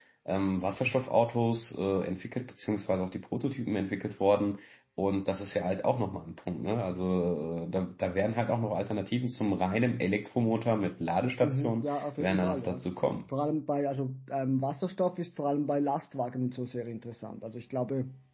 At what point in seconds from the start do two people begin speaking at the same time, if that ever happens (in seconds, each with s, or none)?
11.4 s